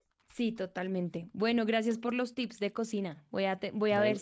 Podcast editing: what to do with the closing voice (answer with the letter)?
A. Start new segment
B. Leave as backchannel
B